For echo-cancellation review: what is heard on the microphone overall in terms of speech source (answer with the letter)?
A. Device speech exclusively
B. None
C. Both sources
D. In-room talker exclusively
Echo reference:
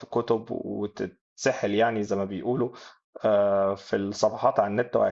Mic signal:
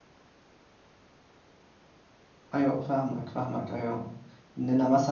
D